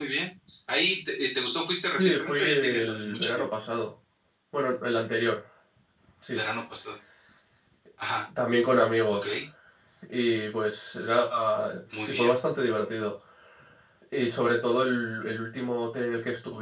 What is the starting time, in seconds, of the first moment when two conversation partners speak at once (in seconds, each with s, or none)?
1.9 s